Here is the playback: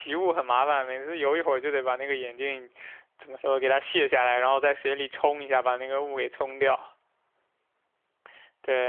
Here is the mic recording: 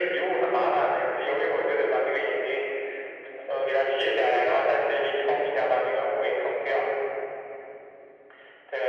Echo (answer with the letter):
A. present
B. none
A